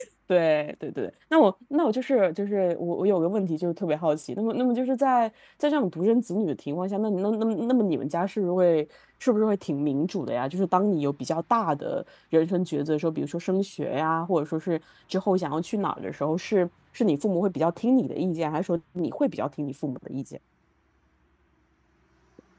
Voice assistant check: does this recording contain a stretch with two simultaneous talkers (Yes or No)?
No